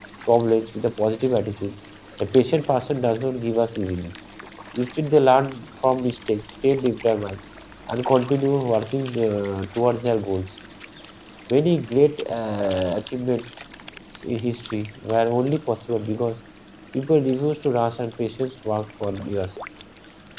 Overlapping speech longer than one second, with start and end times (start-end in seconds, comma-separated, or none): none